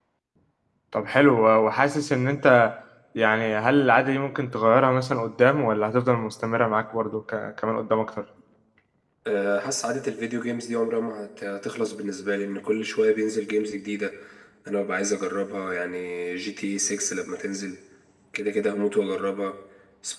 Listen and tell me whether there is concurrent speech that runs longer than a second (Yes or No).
No